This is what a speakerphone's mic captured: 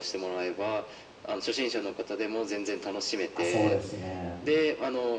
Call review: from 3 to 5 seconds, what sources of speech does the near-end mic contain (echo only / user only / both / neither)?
both